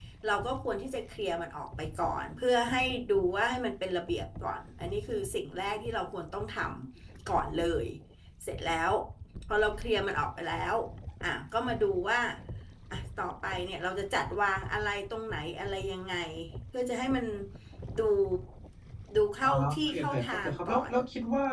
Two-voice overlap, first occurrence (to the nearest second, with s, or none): 19 s